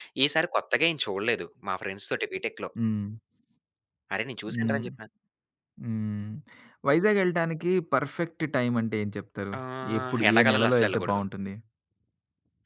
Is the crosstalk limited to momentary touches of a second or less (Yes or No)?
No